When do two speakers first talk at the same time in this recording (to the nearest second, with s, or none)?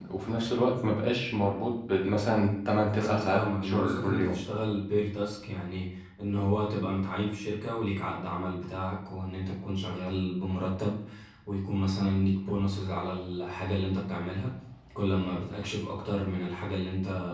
3 s